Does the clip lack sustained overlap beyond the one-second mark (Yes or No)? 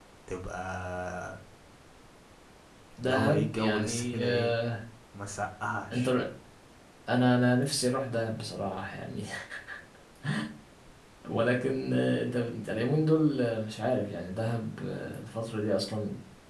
No